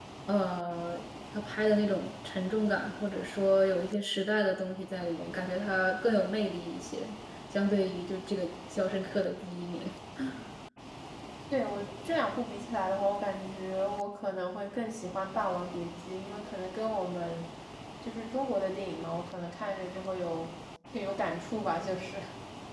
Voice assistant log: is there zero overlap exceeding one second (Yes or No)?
Yes